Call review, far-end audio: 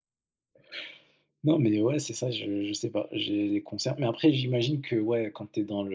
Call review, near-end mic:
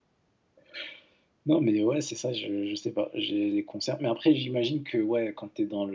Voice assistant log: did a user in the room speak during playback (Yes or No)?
No